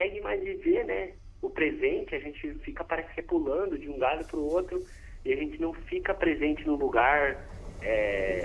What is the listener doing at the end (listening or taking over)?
listening